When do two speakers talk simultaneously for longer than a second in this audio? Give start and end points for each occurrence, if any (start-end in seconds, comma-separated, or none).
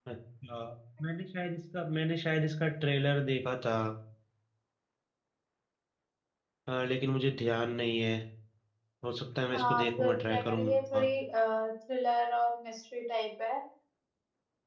9.5-11.1